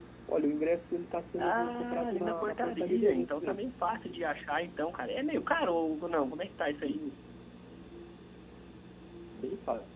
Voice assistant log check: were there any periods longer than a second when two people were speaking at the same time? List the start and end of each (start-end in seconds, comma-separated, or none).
1.4-3.6